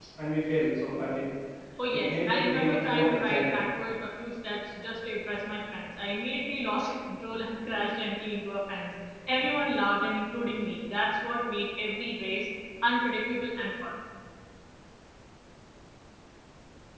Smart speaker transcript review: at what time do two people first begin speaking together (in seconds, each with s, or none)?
1.9 s